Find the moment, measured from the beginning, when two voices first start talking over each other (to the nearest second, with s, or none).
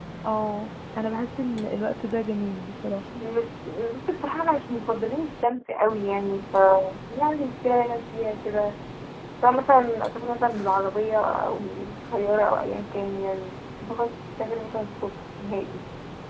none